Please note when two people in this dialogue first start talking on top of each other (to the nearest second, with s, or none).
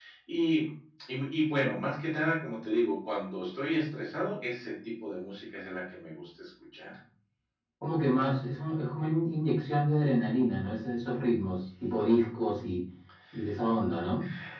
none